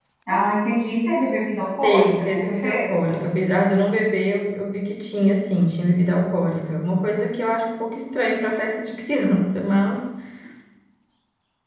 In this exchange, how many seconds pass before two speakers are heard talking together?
2 s

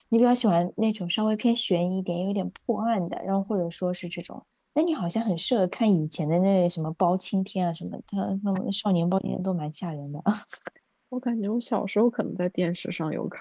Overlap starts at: none

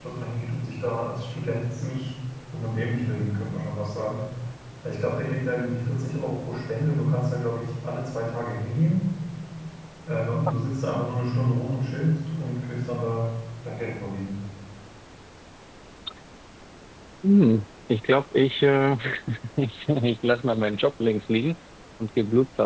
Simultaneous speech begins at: none

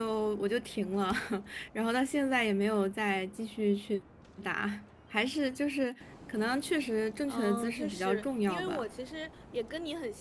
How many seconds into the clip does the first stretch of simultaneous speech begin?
7 s

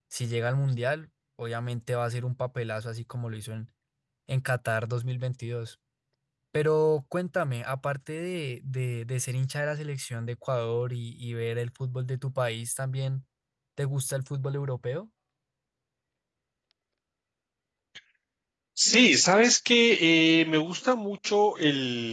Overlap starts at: none

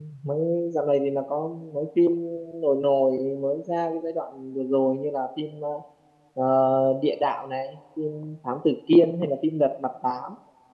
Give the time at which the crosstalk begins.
none

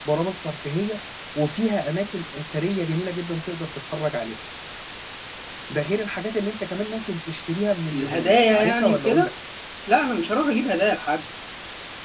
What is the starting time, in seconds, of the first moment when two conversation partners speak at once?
8 s

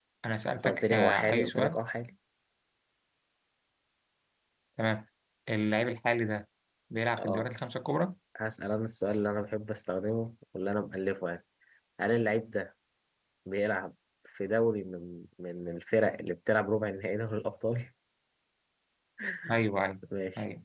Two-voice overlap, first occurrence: 1 s

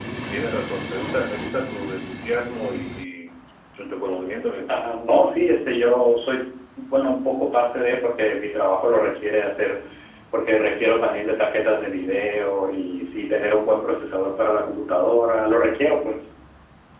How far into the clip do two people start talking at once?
none

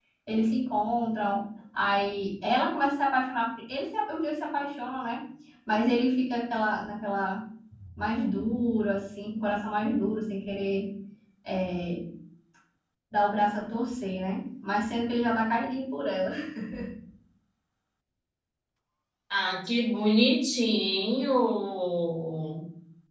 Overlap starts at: none

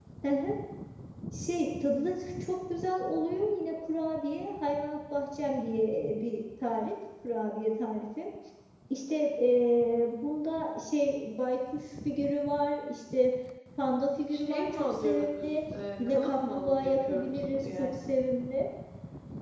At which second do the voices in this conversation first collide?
14 s

